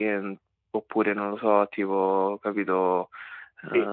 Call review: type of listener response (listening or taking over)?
listening